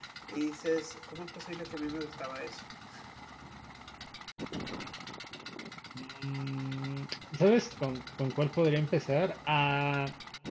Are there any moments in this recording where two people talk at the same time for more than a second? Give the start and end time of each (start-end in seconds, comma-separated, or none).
none